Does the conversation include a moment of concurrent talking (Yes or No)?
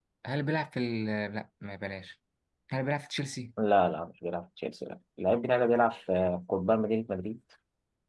No